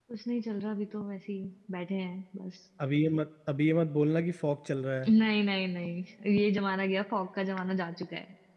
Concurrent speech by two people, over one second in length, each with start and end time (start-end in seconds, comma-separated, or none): none